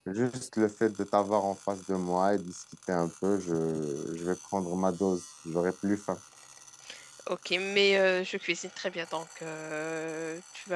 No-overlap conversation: Yes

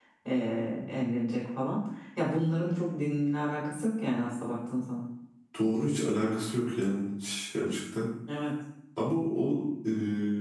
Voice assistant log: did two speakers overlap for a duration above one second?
No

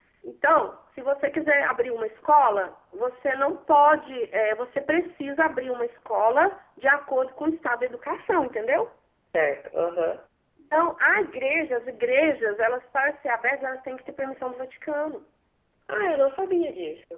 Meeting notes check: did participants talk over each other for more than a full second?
No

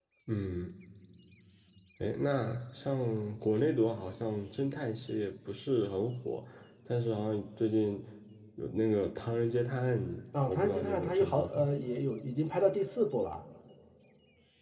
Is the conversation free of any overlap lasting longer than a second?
No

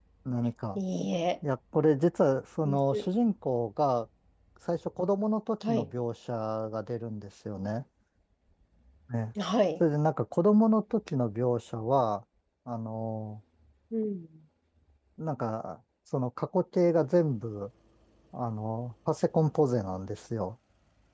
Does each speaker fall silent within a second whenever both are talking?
Yes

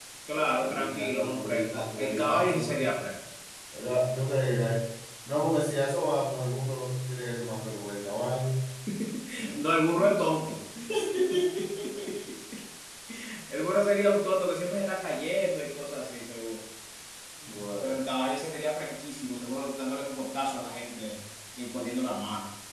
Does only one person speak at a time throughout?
No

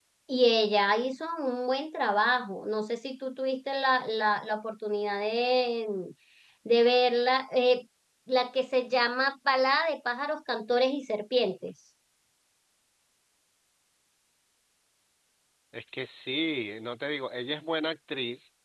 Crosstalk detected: No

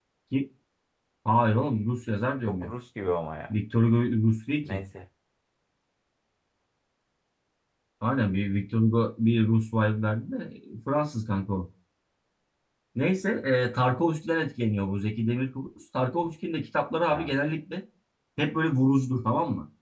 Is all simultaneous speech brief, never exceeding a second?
Yes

